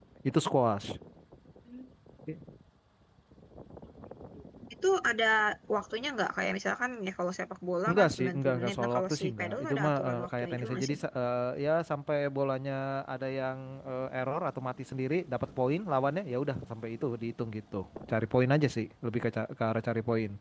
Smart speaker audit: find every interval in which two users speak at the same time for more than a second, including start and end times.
7.9-11.0

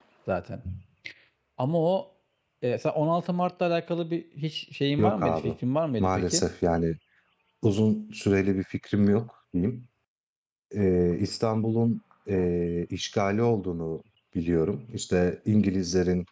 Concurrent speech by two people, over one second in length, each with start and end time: none

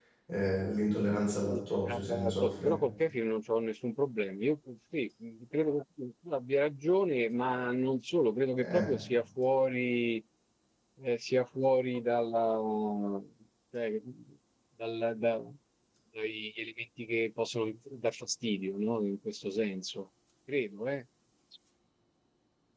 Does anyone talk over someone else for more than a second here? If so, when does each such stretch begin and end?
1.4-2.7

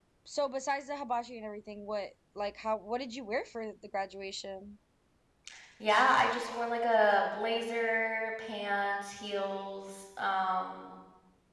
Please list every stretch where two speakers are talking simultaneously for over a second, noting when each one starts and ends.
none

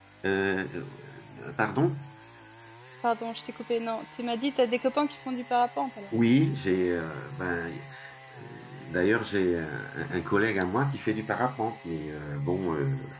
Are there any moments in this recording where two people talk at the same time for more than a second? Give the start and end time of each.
none

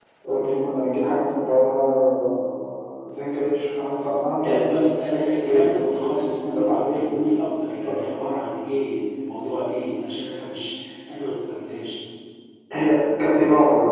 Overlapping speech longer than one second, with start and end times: 4.4-7.0

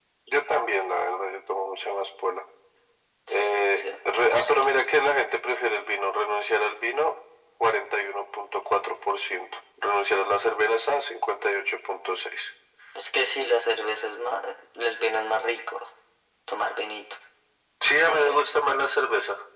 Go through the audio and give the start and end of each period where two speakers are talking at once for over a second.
3.3-4.6

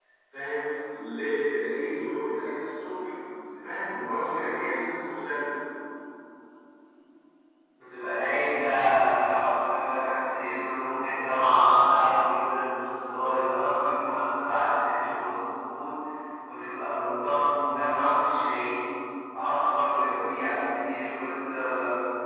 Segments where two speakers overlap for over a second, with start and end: none

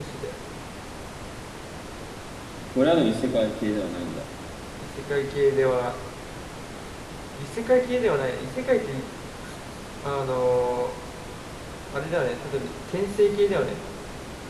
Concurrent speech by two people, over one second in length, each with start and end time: none

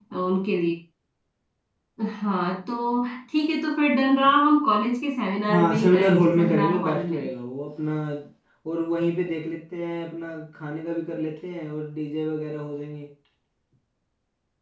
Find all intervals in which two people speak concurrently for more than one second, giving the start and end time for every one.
5.5-7.3

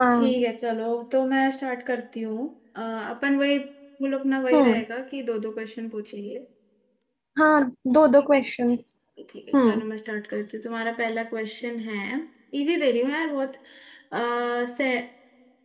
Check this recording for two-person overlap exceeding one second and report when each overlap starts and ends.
none

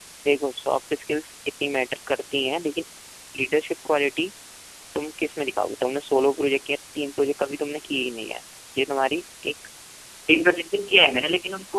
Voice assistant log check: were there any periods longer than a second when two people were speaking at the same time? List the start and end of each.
none

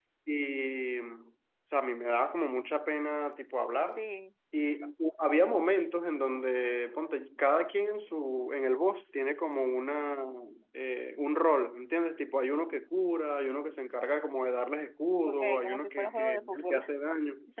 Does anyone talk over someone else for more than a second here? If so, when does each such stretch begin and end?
15.2-16.8

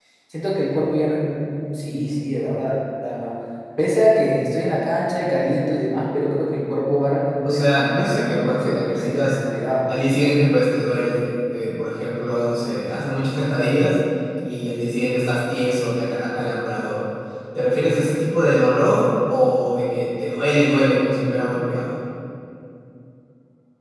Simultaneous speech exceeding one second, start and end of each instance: 7.4-9.4

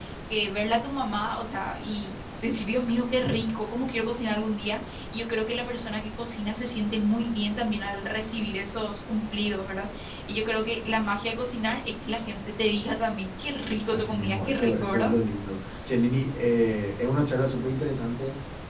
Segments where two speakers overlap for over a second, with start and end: 13.9-15.1

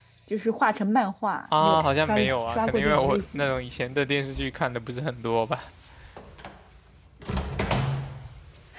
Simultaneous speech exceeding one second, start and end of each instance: 1.6-3.5

